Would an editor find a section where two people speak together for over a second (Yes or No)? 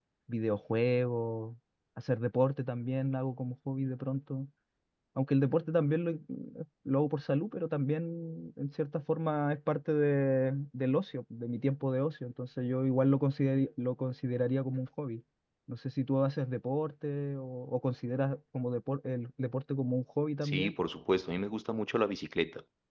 No